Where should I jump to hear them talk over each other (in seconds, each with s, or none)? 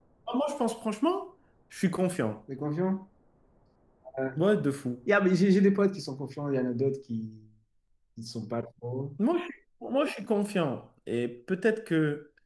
none